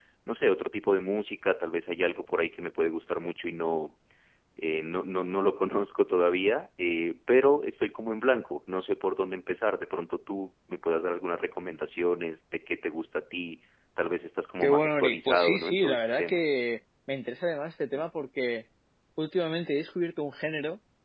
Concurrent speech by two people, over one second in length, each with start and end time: 14.6-16.4

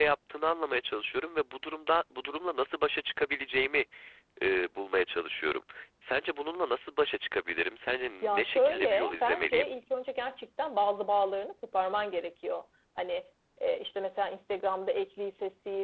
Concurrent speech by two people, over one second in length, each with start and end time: 8.2-9.6

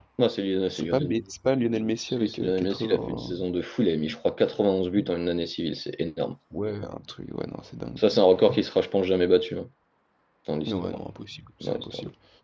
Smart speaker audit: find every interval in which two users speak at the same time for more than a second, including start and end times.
2.1-3.3

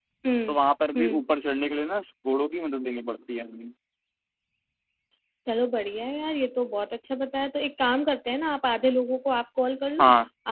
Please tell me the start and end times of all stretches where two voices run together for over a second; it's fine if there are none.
none

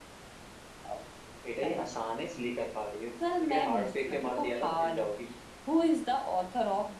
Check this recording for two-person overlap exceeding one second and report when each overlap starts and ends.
3.4-5.0

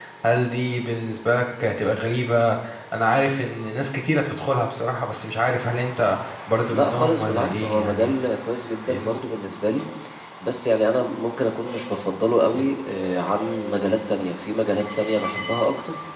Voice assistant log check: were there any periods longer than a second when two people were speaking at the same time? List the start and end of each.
6.7-8.2

